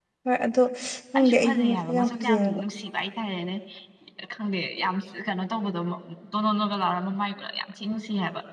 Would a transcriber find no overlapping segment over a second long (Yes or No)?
No